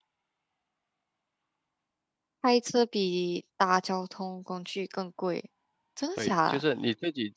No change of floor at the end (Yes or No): No